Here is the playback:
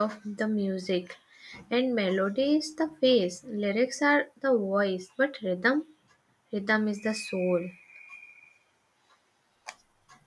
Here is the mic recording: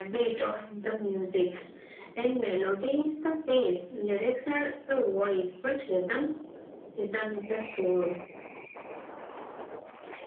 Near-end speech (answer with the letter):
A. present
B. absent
B